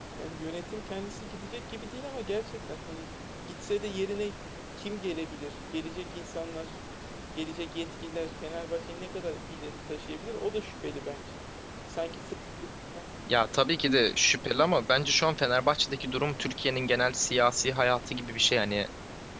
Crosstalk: none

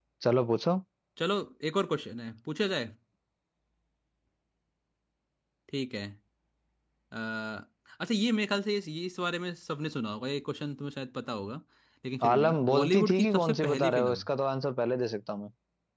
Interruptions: present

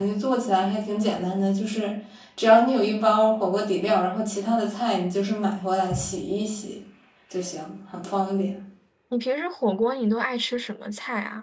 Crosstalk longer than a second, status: none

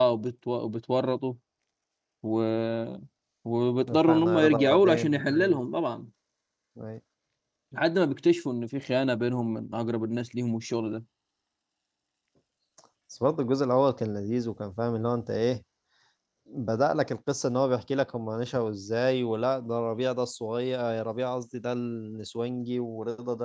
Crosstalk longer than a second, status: present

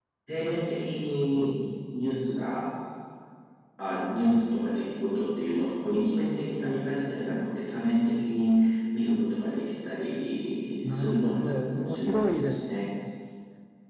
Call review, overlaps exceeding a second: present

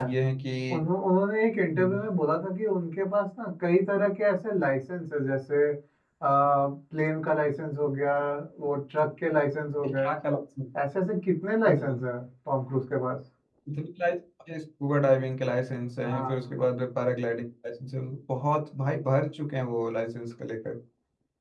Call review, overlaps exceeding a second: none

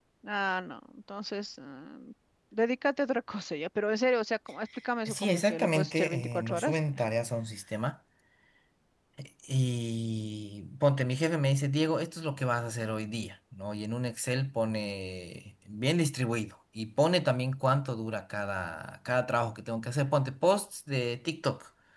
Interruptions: present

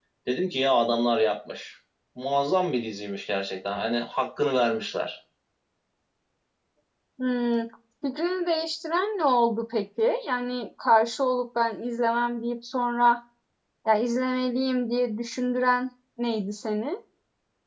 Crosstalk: none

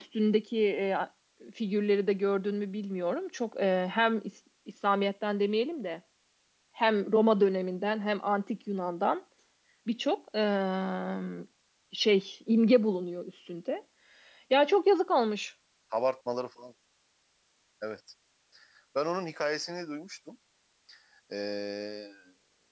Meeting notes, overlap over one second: none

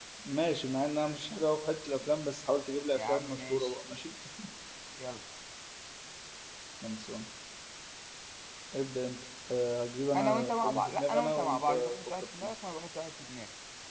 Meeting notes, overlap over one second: present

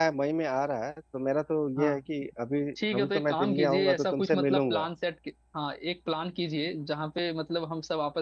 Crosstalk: present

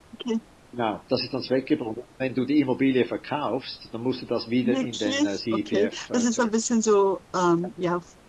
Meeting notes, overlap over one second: present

